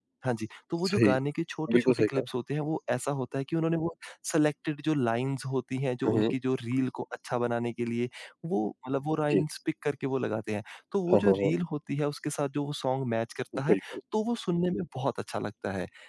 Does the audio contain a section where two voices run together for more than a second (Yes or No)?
No